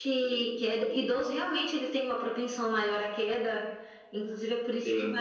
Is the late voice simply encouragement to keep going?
Yes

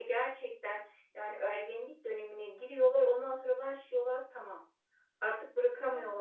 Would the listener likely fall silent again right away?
Yes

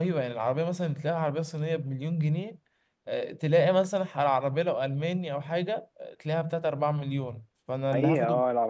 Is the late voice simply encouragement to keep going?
No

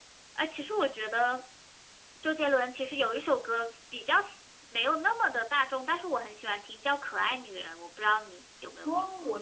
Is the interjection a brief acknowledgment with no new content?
No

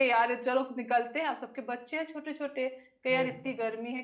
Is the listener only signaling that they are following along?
Yes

